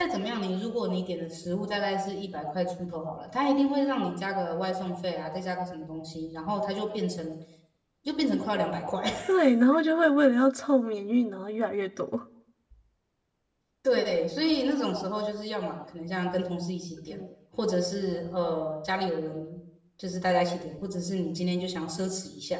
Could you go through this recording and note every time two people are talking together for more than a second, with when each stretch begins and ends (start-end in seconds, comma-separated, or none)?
none